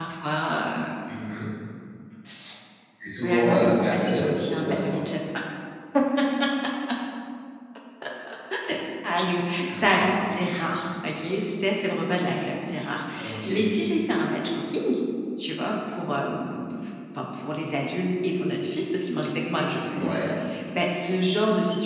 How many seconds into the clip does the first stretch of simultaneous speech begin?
3.2 s

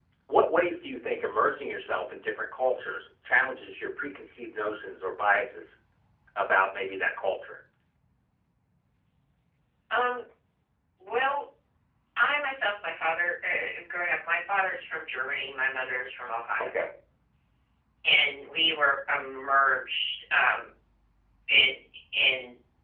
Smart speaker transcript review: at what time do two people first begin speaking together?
none

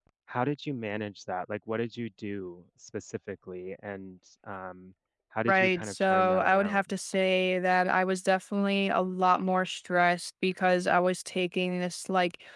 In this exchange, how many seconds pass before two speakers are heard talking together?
5.5 s

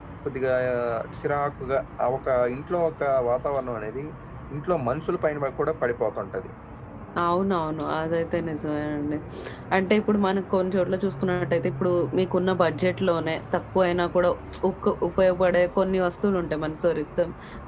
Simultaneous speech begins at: none

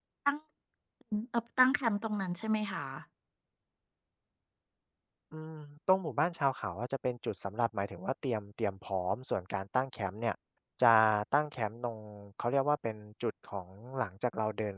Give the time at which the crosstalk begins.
none

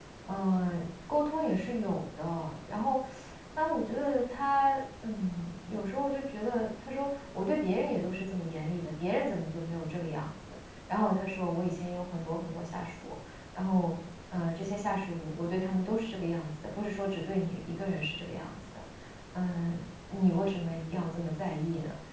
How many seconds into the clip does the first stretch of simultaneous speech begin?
none

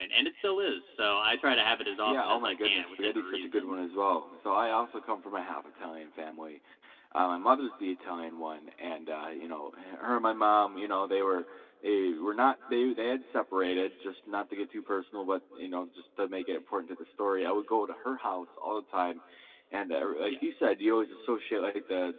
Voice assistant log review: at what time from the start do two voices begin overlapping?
2.0 s

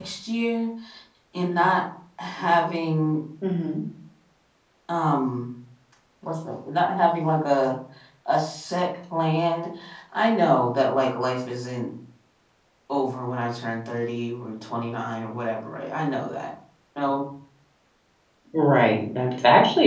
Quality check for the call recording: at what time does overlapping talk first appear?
none

